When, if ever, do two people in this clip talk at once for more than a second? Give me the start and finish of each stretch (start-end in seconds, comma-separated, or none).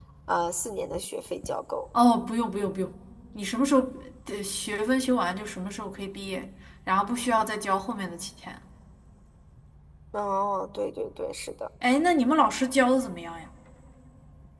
none